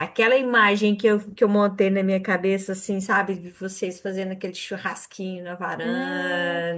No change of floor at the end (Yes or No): No